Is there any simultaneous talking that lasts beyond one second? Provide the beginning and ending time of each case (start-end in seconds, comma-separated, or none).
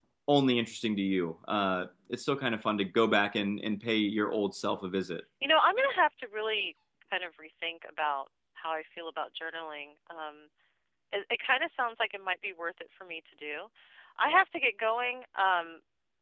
none